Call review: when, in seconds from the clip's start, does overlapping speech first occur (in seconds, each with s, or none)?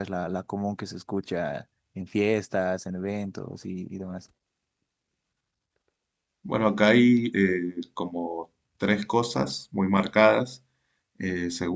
none